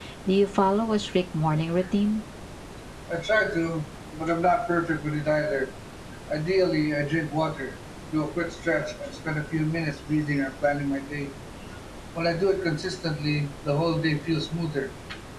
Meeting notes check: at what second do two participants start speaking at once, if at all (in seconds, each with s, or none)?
none